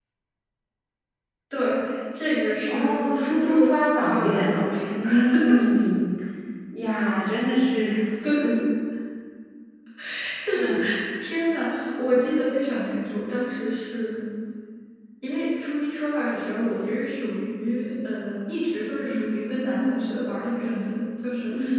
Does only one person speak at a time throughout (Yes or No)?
No